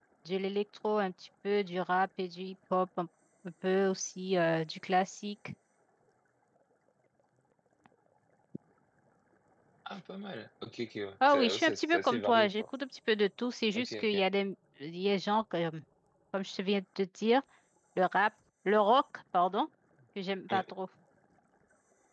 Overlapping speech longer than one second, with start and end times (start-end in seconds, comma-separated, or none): 11.3-12.5